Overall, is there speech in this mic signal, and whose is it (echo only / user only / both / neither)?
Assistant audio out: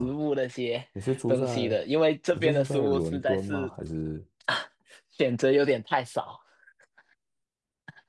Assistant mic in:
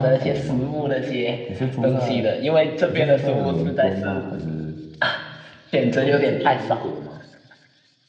both